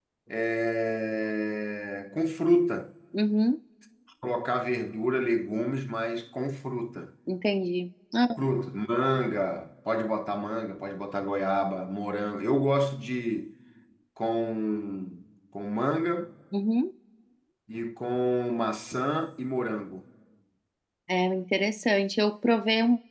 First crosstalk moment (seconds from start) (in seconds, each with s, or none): none